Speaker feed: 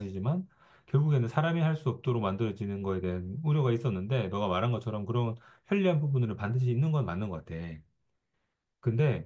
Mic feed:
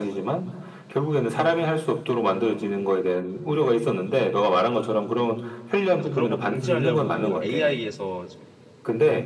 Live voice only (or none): 그래서 그런 거 방지하려고 AI에서